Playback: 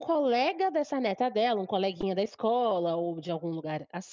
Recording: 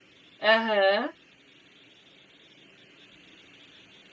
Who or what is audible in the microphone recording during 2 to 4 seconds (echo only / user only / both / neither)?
neither